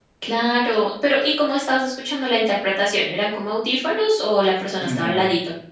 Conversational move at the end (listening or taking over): taking over